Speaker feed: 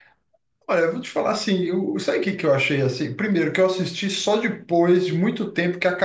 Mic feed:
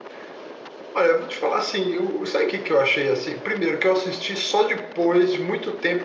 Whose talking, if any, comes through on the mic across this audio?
echo only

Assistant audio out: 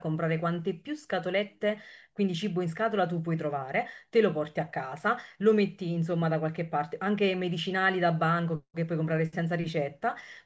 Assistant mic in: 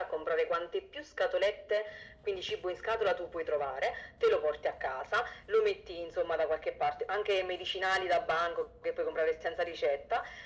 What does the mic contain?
echo only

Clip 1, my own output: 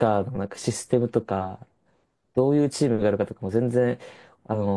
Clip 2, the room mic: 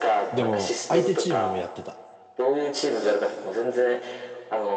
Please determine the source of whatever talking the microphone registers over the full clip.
both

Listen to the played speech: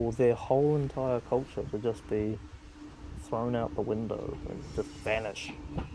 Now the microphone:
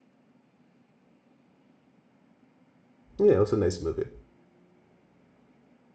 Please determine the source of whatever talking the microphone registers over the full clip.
user only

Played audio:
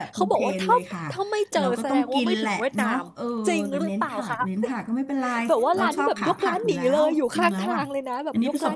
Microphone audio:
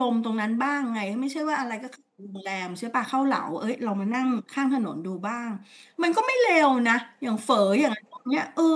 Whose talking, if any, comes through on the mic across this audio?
user only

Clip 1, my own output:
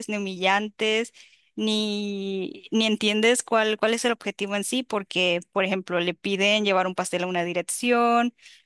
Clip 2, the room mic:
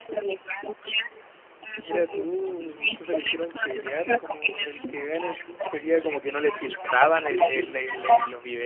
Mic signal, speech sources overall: both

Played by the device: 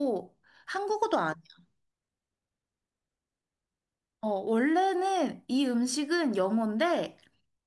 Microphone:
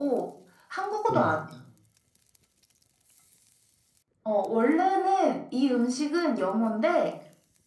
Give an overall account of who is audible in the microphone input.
both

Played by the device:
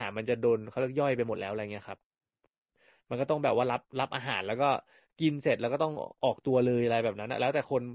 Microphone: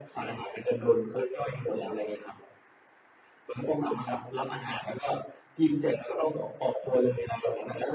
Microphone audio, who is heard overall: echo only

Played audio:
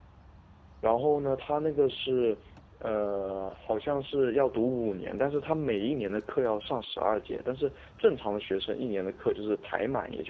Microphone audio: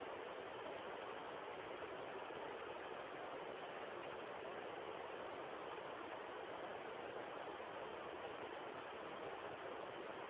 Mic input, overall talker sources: neither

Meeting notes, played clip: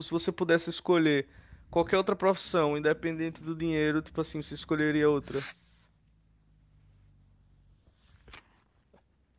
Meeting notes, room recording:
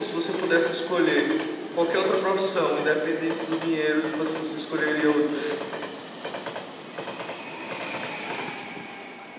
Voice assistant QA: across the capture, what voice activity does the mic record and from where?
echo only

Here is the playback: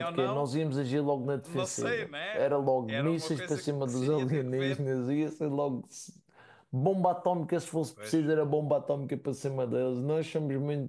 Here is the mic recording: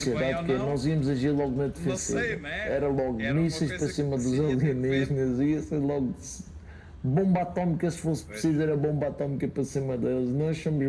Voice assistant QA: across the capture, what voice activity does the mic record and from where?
echo only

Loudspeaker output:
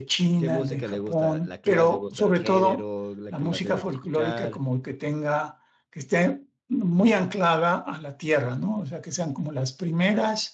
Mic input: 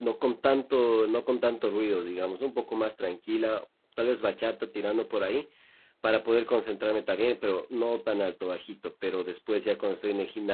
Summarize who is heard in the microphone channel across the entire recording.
user only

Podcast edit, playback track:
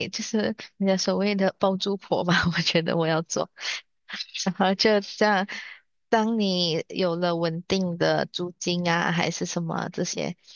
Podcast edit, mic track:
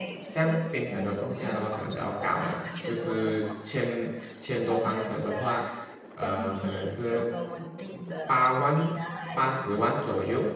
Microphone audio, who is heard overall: both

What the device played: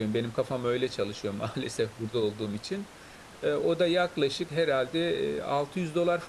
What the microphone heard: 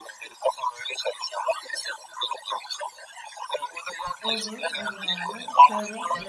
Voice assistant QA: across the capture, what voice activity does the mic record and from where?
both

